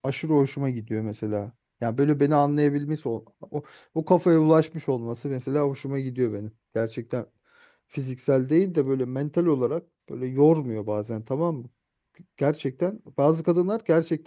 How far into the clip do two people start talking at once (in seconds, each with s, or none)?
none